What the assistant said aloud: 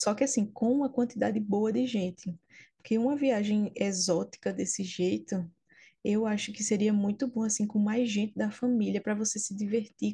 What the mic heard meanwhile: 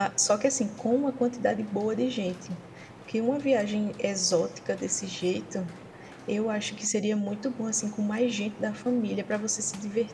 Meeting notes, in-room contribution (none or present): none